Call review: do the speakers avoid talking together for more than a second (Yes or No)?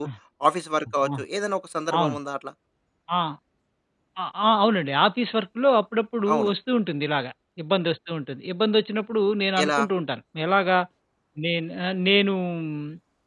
Yes